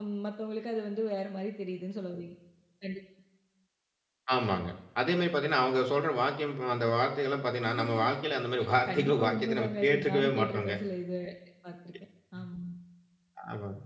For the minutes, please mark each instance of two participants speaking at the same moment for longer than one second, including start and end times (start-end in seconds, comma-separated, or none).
8.9-10.8